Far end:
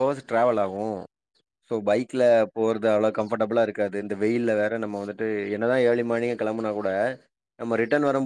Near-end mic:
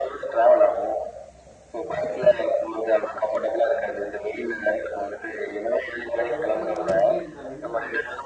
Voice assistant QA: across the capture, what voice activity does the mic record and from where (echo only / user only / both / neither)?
both